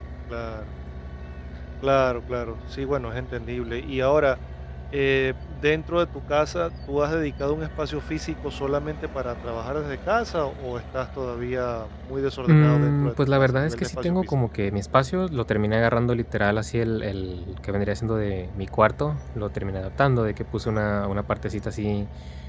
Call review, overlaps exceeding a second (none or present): present